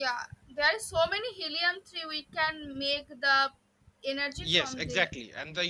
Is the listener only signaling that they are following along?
No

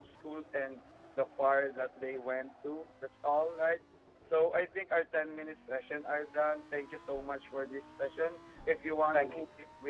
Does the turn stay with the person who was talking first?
Yes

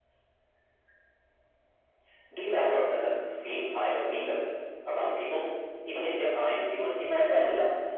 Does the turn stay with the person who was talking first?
No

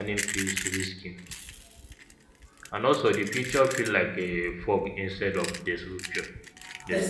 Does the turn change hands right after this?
Yes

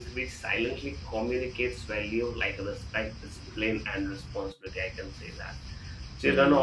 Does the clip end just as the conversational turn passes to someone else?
No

